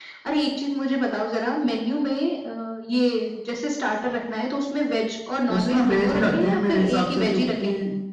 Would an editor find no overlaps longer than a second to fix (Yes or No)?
No